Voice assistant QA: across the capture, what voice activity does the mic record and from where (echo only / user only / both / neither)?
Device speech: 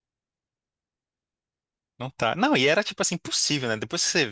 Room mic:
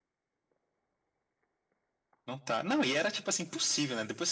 echo only